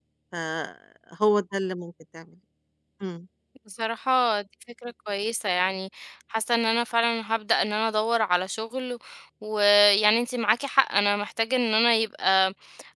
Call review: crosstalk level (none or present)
none